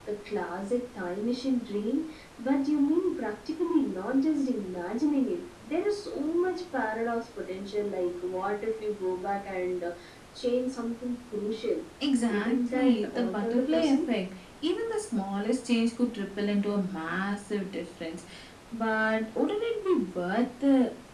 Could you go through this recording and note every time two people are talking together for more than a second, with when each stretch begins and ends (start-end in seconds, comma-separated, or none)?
12.3-14.0